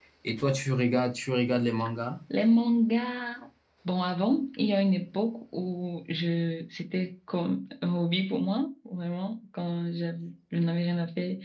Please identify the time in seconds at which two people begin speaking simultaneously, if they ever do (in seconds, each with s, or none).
none